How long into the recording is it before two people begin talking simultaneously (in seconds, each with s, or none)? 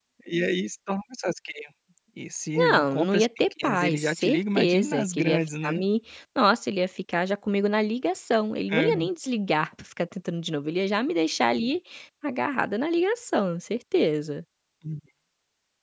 2.6 s